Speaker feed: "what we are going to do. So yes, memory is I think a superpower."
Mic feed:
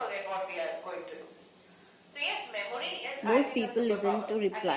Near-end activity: present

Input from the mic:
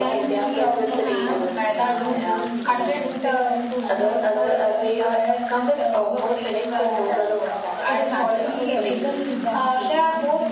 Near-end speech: present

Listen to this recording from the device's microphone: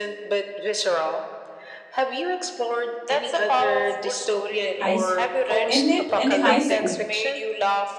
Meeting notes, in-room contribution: present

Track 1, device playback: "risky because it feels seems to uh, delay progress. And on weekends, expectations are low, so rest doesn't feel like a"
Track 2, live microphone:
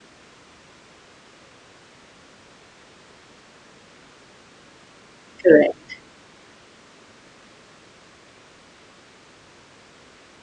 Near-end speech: present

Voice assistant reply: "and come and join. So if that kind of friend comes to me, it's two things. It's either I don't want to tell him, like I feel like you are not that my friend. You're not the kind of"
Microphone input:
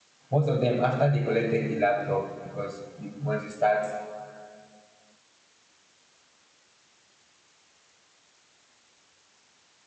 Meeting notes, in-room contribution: present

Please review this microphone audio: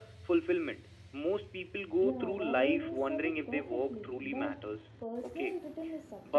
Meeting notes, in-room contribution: present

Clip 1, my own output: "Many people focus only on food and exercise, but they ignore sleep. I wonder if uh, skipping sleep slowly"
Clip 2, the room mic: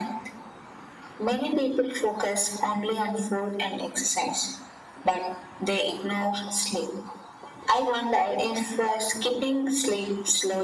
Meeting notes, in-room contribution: none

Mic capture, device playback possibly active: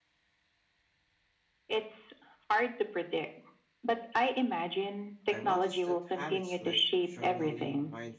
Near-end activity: present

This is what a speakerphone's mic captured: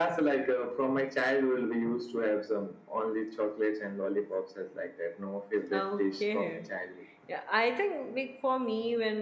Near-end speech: present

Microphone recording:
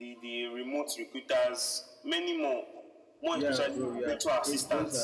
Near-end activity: present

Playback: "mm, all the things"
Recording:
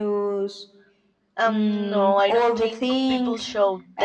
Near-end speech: present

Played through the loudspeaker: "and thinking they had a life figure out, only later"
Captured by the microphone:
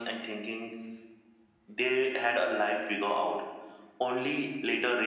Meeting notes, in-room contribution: none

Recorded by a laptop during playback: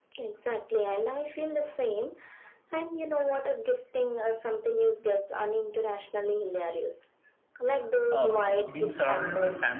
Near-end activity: present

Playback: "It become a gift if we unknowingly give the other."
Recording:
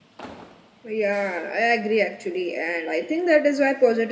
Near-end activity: present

